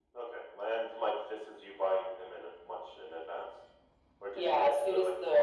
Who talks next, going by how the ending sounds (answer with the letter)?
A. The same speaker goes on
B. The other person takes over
B